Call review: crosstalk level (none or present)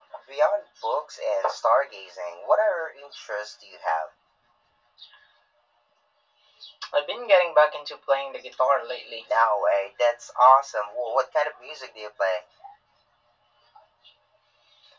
none